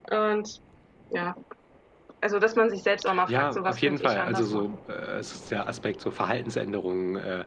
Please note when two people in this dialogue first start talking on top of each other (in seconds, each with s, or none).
3.0 s